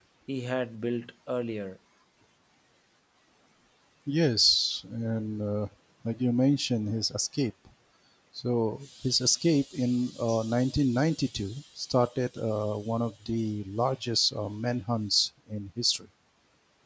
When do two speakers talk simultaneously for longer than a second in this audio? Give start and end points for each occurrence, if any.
none

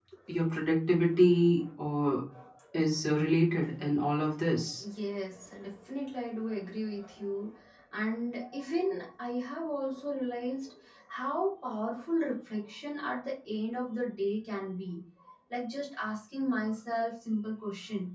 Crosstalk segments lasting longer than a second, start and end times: none

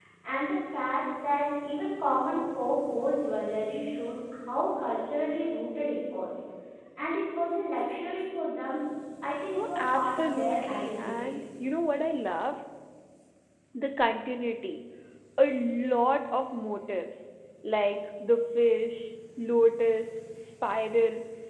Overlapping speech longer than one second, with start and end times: 9.6-11.3

